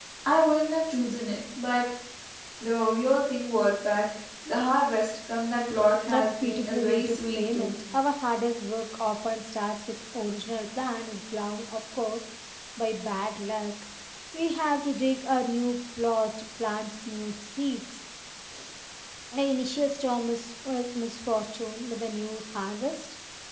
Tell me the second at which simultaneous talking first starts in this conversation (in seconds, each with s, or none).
6.1 s